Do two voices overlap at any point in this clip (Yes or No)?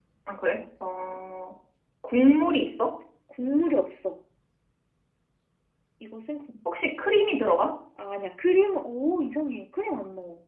No